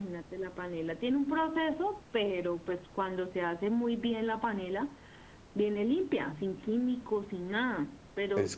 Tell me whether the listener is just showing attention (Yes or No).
Yes